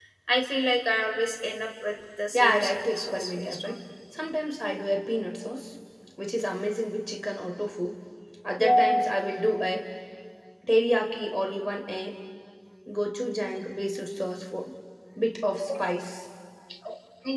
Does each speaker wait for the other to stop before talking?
No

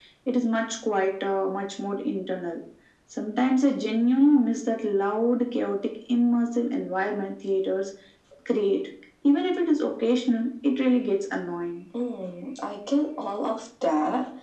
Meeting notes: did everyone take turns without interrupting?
Yes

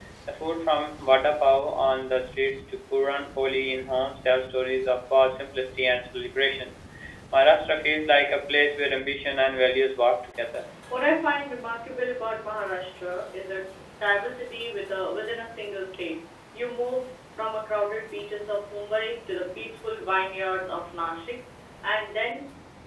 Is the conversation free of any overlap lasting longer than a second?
Yes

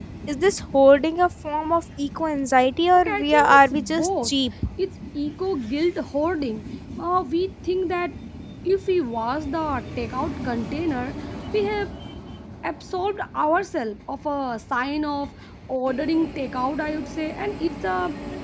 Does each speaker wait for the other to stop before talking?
No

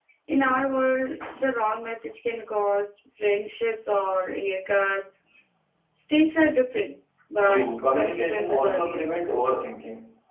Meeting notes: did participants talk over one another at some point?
Yes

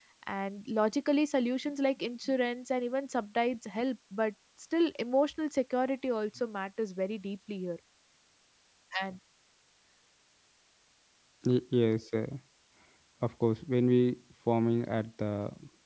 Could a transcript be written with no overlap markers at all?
Yes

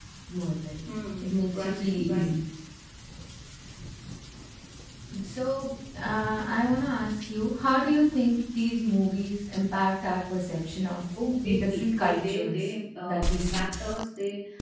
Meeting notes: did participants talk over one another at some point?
Yes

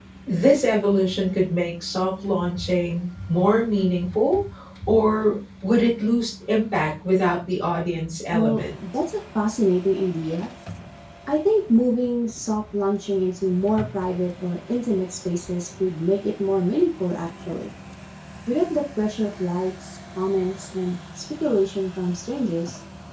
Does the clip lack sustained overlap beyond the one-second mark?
Yes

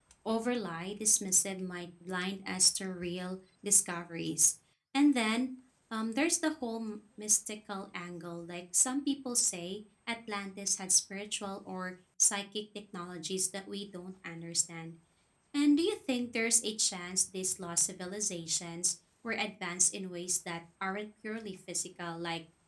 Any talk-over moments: No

